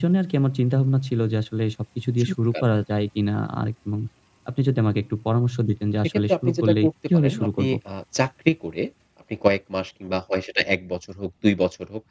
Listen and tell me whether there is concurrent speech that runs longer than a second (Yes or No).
Yes